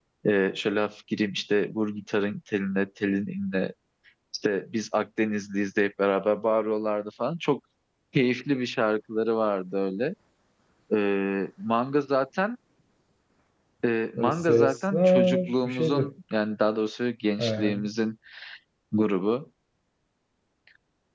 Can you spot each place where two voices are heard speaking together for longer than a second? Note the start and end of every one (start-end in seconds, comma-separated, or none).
14.2-16.1